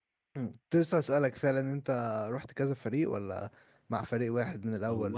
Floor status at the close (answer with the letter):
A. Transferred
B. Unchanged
A